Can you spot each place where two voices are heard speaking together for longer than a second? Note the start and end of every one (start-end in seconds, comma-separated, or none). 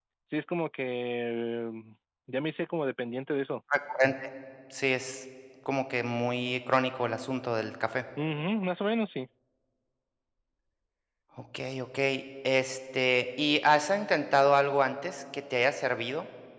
none